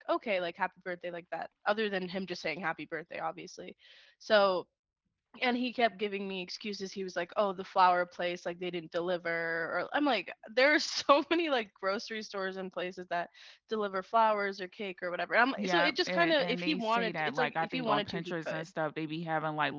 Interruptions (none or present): present